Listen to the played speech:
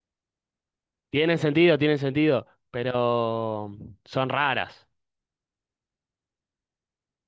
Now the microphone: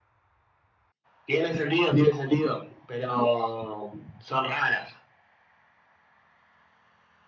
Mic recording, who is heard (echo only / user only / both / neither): echo only